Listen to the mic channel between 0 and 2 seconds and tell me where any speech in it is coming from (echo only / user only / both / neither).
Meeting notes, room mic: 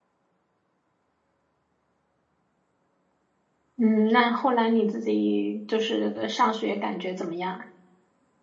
neither